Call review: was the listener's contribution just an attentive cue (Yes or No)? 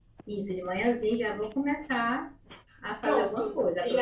No